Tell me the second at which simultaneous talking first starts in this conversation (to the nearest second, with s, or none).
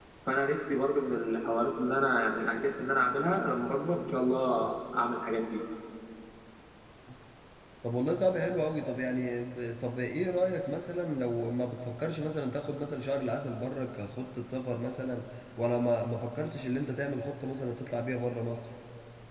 none